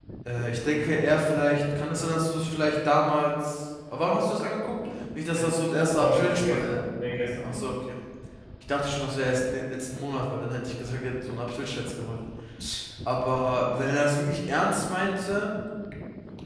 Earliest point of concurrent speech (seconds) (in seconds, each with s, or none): 5.3 s